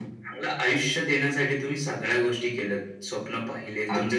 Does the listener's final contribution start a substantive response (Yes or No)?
No